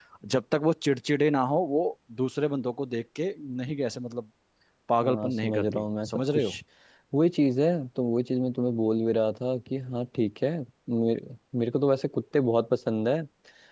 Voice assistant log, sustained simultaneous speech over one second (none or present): present